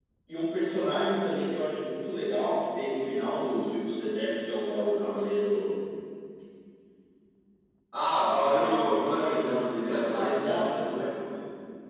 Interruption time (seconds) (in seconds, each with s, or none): 8.2 s